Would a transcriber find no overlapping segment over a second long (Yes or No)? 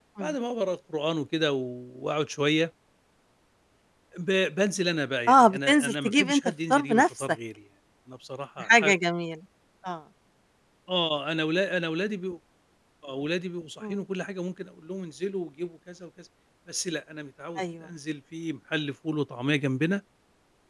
No